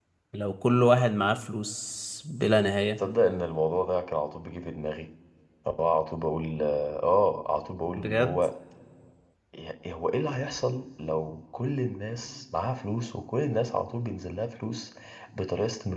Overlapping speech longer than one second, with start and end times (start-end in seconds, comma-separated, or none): none